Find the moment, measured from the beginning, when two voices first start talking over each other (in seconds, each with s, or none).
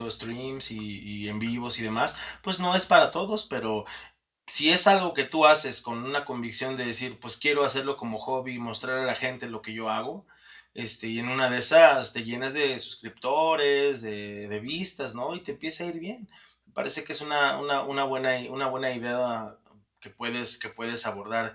none